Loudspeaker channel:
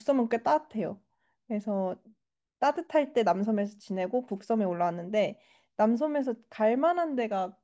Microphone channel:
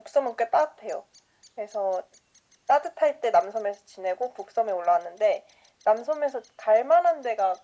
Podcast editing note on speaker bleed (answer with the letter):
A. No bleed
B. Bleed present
B